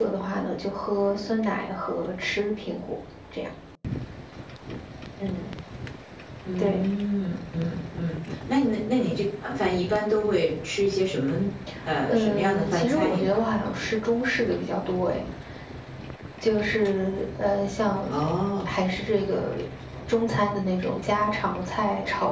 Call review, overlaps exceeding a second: present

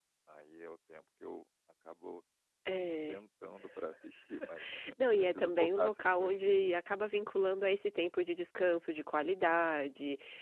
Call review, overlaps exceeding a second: present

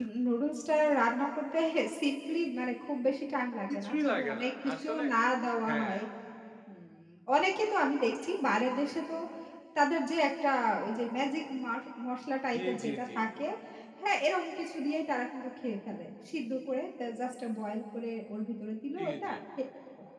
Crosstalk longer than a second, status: present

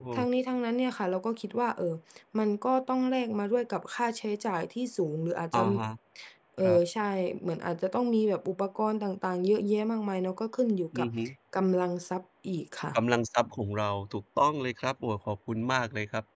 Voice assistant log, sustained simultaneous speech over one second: none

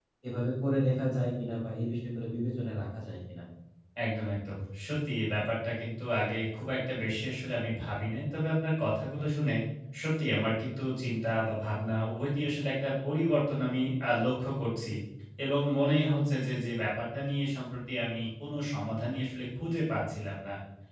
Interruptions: none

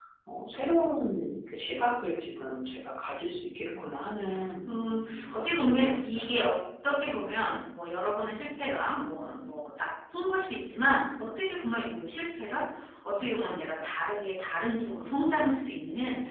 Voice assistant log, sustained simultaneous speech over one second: present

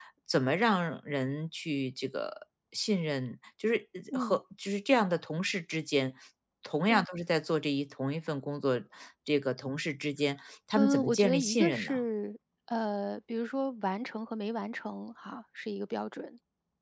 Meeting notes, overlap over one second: present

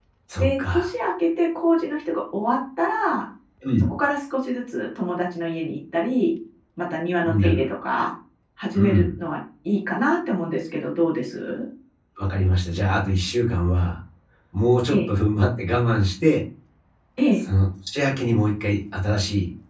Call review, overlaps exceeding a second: none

